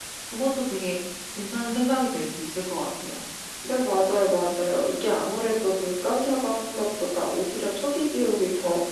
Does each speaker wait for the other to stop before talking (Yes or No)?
Yes